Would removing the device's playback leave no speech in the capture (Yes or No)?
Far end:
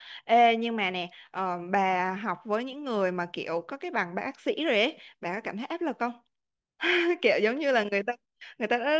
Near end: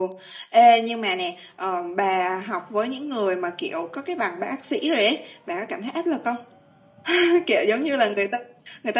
Yes